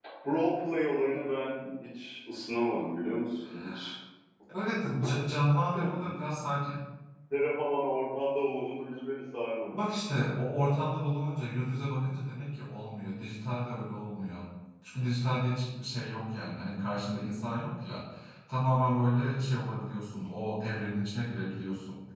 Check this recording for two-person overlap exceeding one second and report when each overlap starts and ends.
none

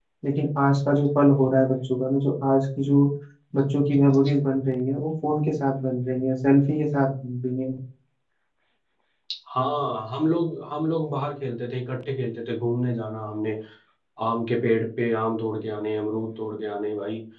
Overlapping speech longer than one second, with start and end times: none

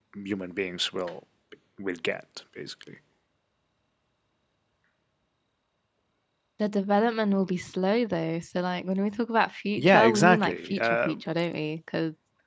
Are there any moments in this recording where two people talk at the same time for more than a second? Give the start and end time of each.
9.8-11.2

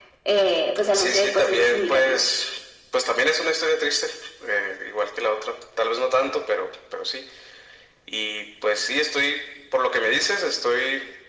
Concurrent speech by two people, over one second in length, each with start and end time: 0.9-2.2

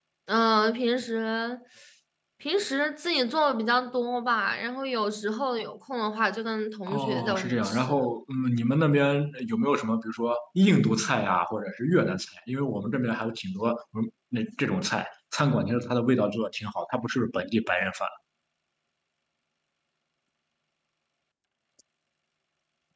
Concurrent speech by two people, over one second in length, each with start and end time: 6.9-8.1

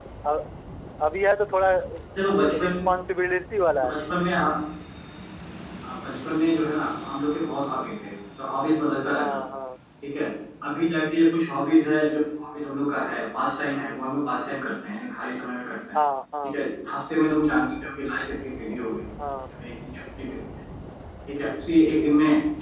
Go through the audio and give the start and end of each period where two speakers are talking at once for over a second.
none

